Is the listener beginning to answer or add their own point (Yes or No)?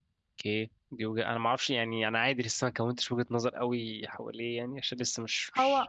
Yes